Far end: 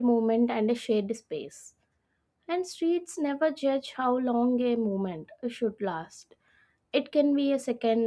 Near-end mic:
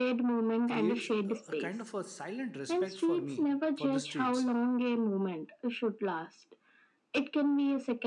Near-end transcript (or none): creates a, a kind of a silent respect for me for the streets